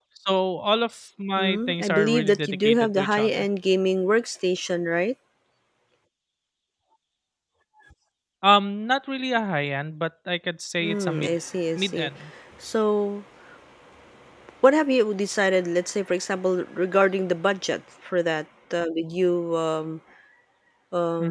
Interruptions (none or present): present